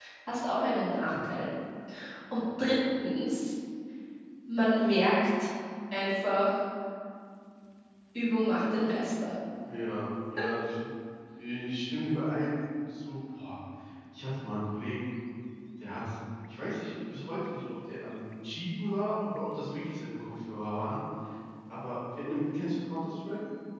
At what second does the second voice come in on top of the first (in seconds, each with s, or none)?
none